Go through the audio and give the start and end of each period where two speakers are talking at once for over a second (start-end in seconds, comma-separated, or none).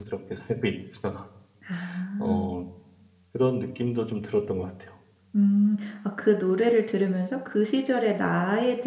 none